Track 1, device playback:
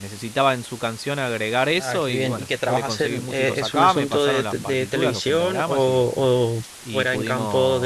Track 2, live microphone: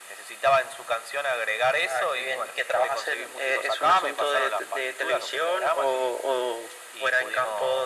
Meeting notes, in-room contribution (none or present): none